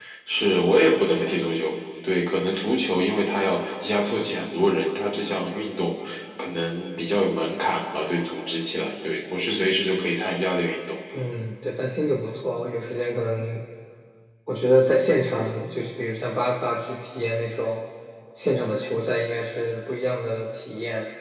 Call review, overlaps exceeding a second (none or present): none